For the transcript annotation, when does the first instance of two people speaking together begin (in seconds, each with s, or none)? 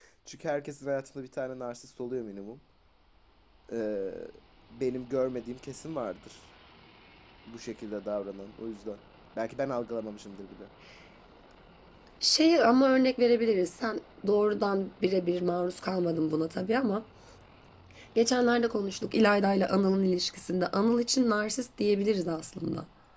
none